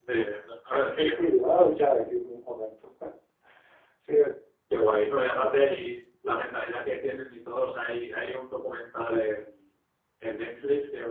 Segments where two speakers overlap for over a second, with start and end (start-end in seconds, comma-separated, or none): none